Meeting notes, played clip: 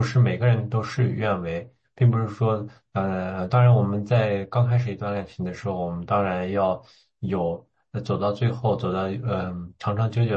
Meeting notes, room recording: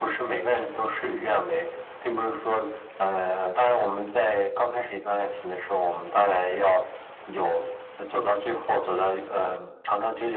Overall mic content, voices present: echo only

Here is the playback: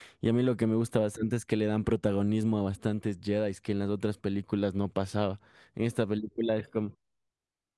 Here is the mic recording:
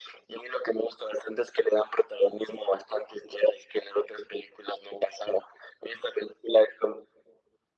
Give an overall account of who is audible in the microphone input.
echo only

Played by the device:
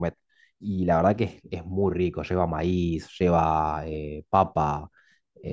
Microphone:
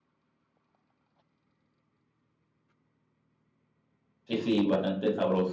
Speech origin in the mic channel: user only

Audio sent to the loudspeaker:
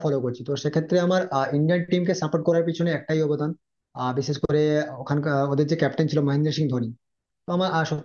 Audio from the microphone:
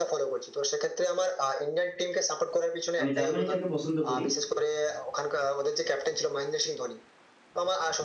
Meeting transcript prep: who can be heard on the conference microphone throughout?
both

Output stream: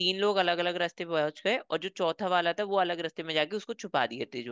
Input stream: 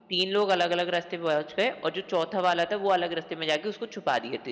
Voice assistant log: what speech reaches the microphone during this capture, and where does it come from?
echo only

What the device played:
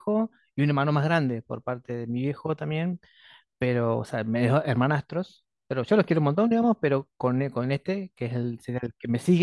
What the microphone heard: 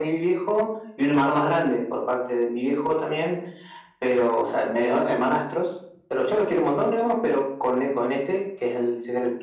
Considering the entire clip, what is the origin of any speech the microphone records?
echo only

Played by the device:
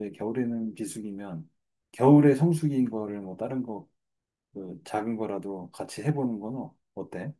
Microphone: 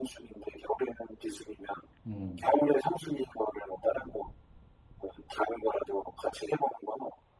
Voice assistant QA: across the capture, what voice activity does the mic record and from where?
both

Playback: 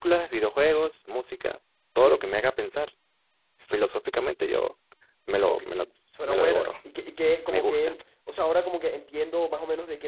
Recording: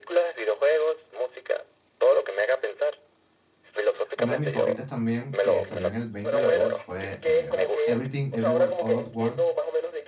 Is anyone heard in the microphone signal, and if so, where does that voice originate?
both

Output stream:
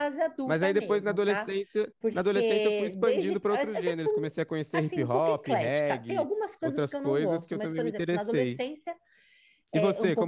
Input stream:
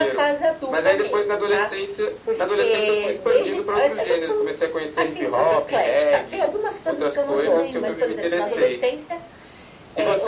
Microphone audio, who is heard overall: both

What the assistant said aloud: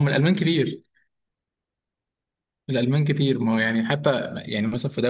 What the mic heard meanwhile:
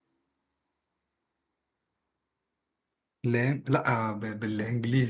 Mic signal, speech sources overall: user only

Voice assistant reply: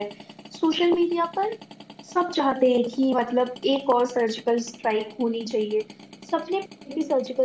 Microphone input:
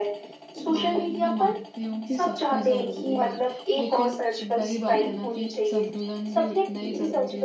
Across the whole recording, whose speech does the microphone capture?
both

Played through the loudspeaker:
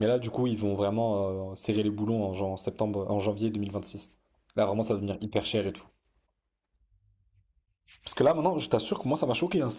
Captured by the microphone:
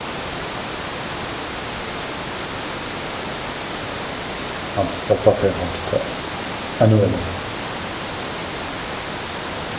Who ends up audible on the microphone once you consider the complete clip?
user only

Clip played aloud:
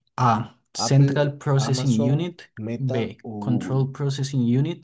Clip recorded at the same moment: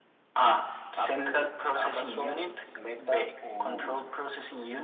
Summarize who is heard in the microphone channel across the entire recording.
echo only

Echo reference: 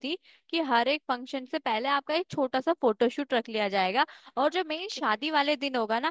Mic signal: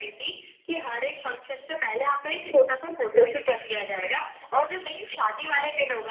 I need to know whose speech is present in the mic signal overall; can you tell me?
echo only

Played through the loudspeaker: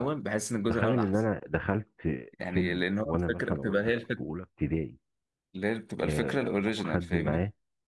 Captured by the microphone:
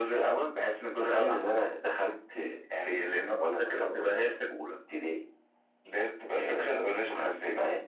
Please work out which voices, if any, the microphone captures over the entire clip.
echo only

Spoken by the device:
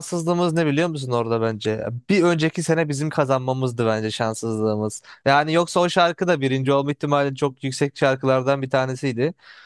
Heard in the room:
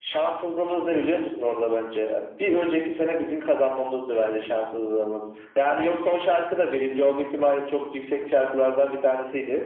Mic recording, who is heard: echo only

